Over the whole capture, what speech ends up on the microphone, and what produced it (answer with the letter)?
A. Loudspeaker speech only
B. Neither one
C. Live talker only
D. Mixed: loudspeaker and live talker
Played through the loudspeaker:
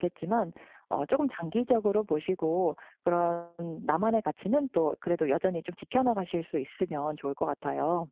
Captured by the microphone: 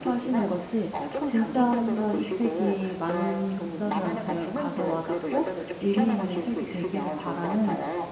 D